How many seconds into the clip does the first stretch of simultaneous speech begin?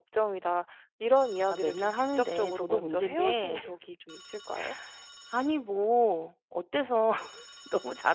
1 s

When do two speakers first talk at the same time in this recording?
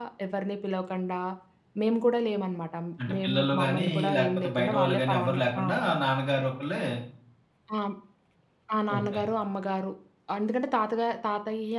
3 s

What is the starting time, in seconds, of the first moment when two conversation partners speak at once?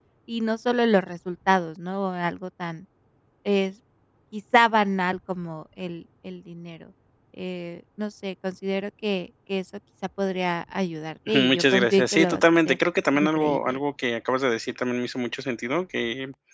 11 s

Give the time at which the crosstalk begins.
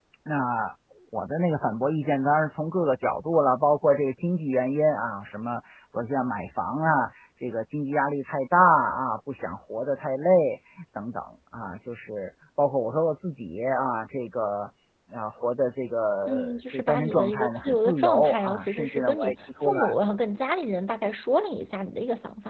16 s

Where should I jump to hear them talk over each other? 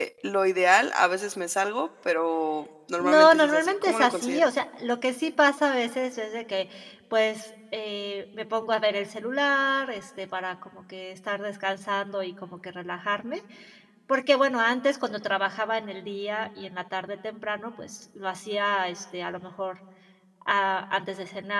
3 s

